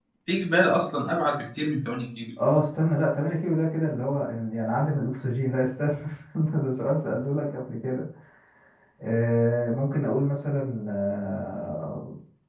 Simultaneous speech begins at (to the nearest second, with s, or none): none